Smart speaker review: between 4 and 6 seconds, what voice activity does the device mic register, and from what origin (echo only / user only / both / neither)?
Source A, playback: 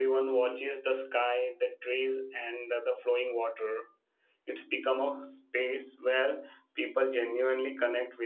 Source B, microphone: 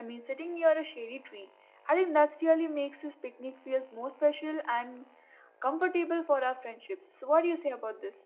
user only